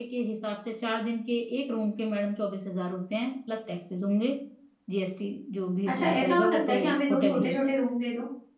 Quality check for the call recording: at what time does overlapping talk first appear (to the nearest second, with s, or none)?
6 s